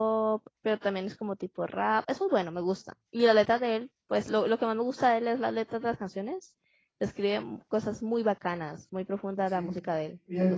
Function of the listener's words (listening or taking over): taking over